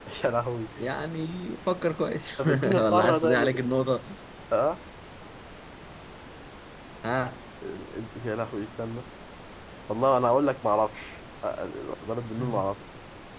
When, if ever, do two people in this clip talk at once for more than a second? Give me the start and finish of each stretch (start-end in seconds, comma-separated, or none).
2.4-3.6